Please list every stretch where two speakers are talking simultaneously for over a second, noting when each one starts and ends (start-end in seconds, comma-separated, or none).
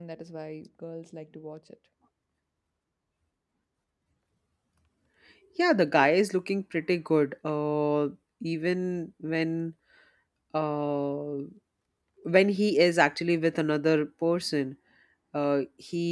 none